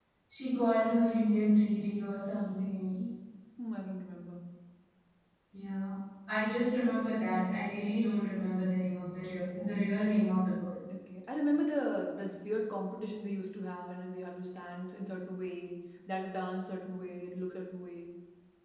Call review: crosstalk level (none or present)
none